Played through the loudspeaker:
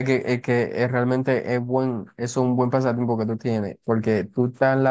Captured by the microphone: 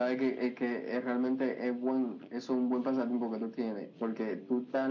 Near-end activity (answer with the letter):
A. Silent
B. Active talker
A